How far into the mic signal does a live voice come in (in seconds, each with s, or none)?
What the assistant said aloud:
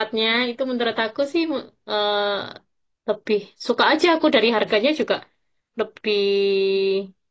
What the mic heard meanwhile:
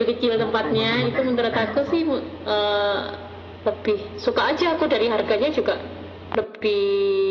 0.4 s